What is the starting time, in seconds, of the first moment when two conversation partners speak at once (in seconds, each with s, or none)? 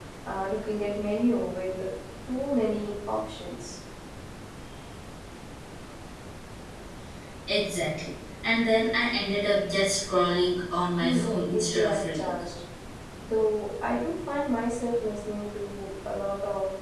11.0 s